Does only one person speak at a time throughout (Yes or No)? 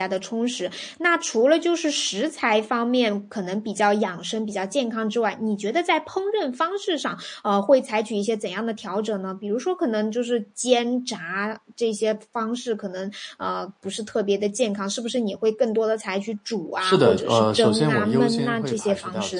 No